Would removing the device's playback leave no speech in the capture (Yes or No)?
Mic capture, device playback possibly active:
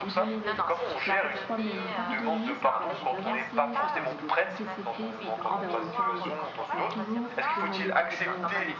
No